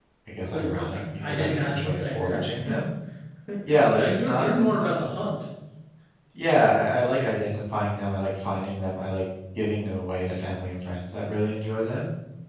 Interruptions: present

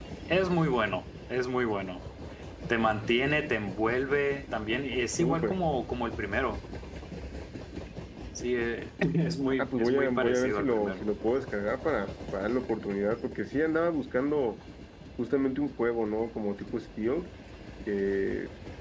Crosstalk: present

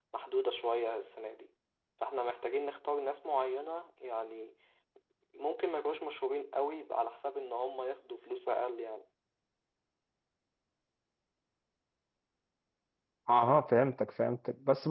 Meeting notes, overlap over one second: none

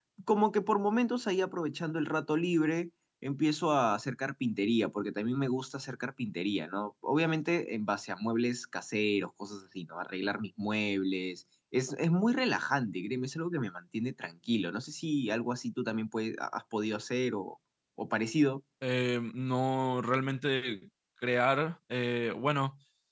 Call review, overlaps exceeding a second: none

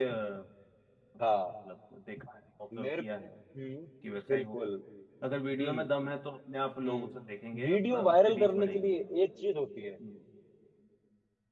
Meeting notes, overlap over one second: present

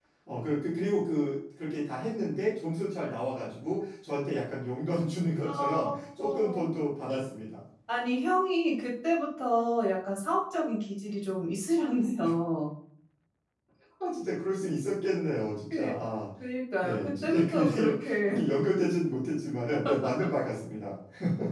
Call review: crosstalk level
present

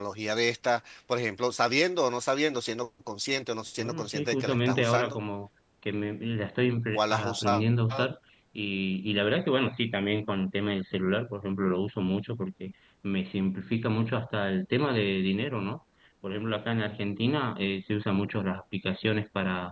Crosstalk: present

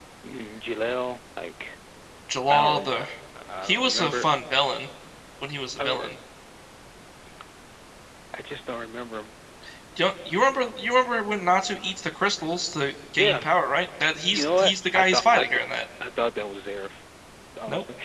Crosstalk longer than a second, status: present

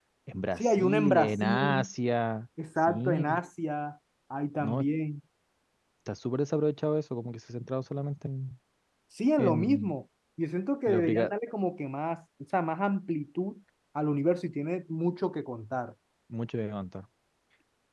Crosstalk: present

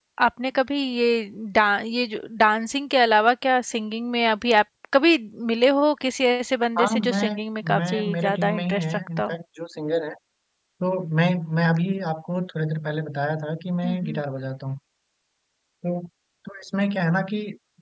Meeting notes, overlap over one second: present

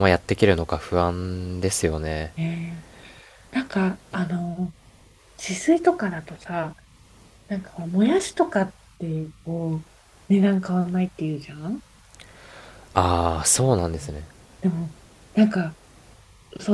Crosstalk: none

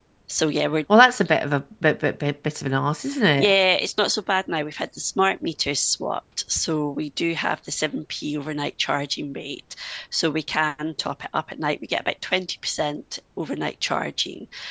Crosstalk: none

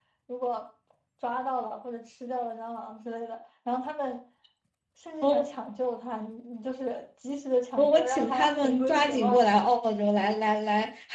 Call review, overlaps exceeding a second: present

